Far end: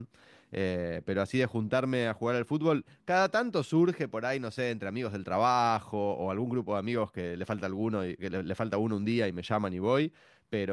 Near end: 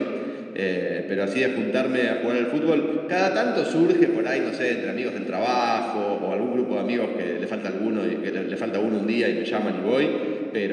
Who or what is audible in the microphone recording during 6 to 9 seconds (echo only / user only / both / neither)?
echo only